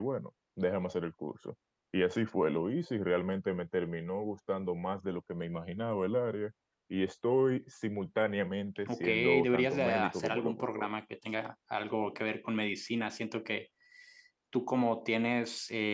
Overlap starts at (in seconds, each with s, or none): 8.8 s